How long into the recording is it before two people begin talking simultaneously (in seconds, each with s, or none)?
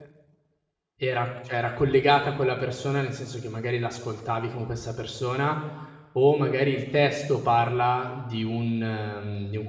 none